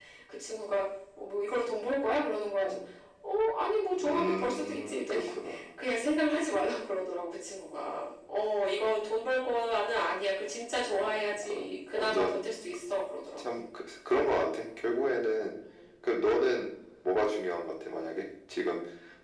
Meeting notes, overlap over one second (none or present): present